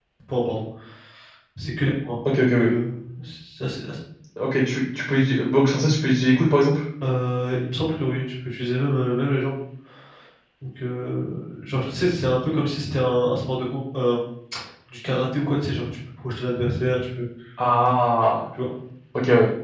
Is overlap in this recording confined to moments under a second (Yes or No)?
Yes